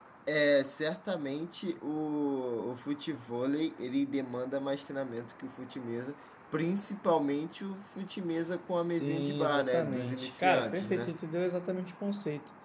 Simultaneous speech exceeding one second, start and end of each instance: 9.0-11.1

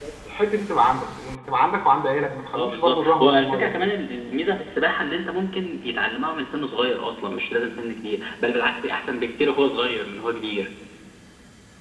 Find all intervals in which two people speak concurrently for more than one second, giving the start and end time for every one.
2.5-3.9

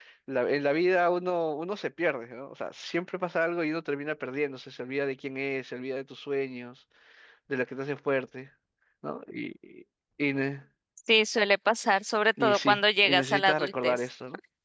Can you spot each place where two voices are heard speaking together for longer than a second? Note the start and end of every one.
12.4-14.0

